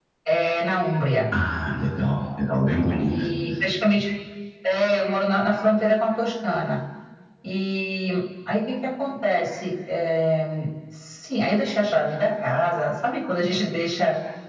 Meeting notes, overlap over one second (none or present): none